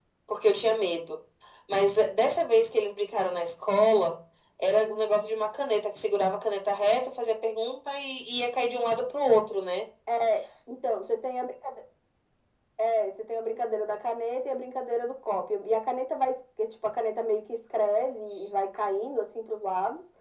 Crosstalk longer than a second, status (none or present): none